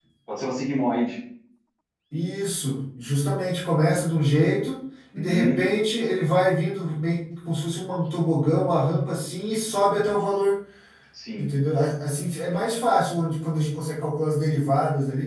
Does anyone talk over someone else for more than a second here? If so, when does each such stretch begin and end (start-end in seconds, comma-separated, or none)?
none